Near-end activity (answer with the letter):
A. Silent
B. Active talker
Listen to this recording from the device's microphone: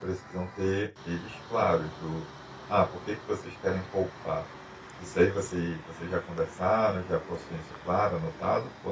B